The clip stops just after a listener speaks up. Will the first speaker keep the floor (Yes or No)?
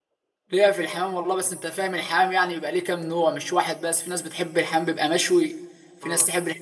Yes